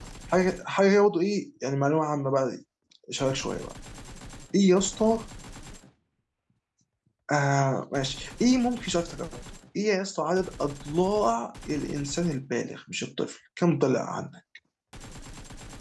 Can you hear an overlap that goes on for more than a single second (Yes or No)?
No